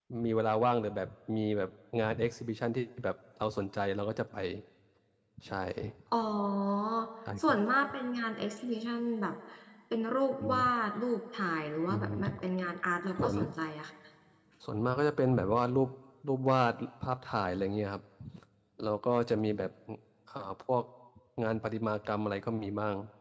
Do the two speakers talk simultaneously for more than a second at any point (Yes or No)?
No